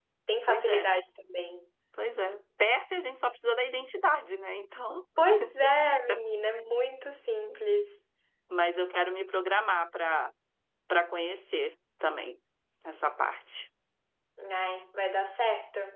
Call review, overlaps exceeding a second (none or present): none